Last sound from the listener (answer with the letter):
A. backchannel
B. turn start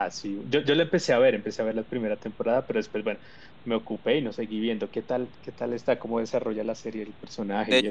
B